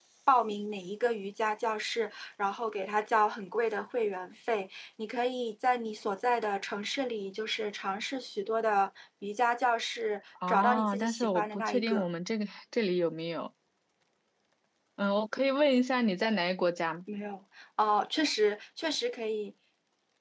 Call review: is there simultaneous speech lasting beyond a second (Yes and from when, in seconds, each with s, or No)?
Yes, from 10.4 s